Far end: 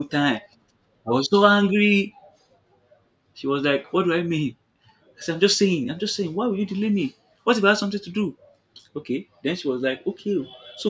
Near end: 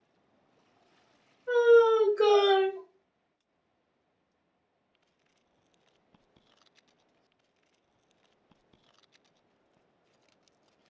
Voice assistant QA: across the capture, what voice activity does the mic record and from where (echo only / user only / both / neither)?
user only